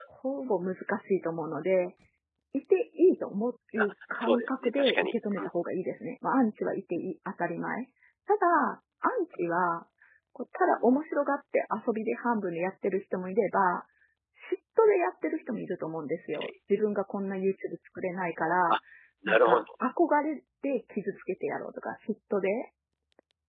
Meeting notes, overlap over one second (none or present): present